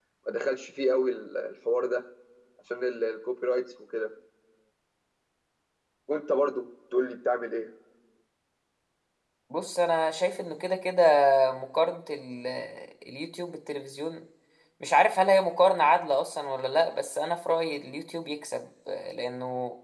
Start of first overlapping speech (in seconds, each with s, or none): none